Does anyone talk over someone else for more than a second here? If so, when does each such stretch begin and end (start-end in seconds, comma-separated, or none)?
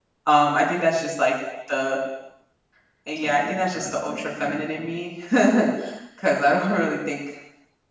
3.2-4.9